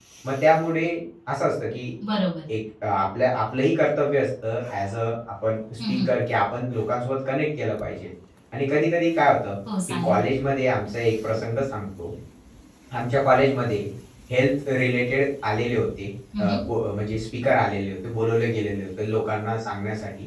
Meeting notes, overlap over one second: none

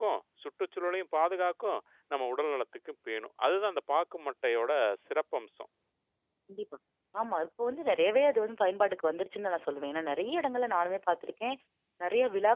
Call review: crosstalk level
none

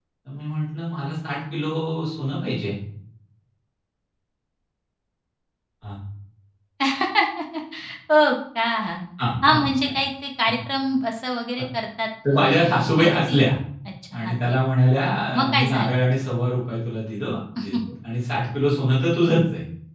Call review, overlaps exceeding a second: present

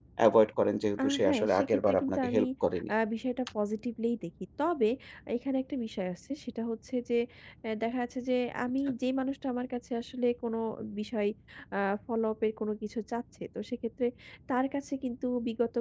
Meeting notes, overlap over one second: present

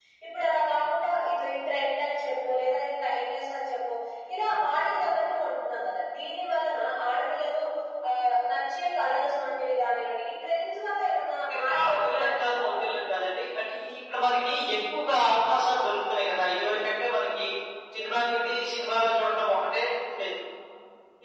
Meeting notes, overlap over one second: present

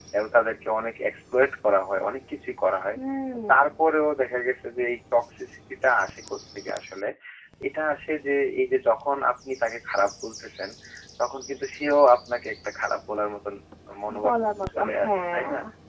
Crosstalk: present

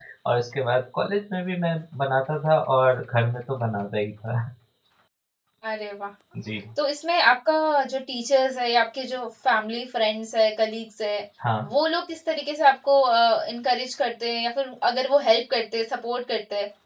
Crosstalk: none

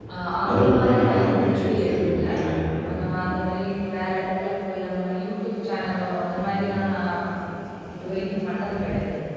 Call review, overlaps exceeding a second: present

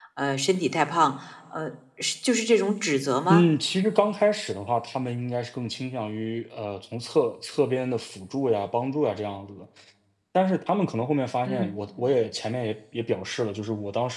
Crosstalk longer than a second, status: none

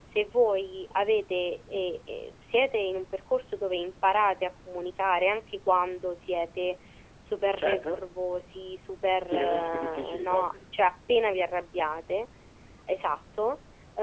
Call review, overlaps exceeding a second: present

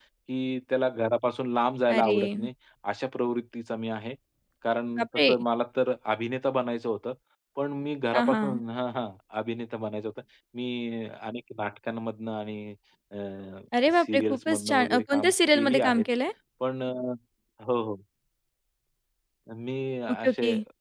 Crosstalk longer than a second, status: present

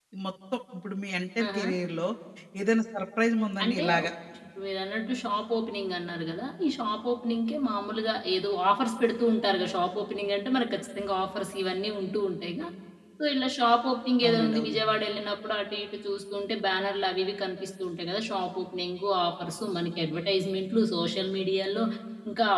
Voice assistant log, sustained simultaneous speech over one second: none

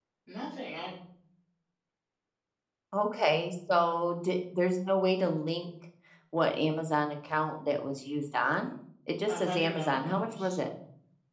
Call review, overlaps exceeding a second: present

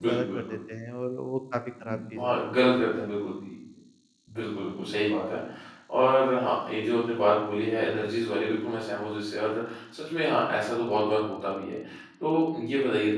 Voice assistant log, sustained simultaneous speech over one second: none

